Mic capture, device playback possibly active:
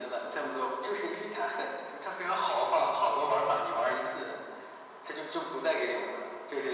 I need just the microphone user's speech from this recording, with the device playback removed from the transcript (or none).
none